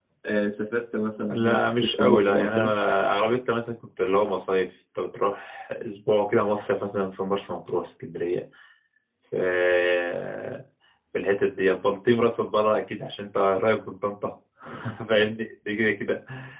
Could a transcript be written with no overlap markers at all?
No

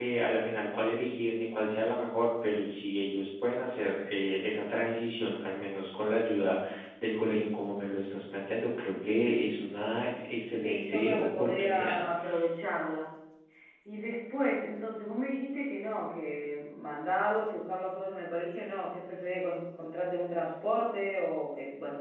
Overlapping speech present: Yes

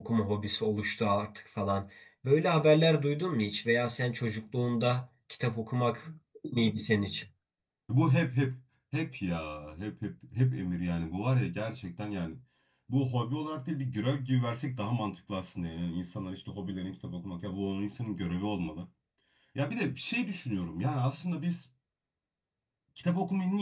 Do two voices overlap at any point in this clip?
No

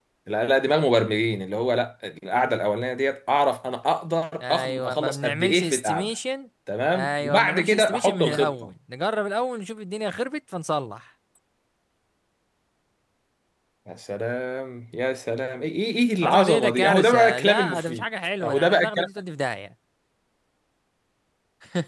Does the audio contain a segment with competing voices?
Yes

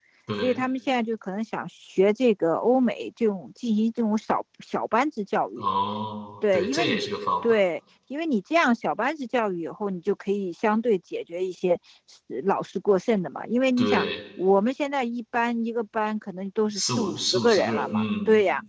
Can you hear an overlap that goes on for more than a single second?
Yes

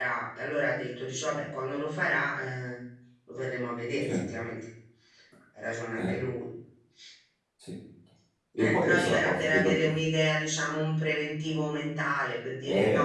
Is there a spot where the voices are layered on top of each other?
Yes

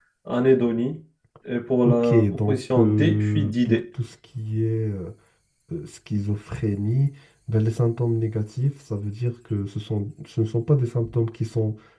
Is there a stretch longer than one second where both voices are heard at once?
Yes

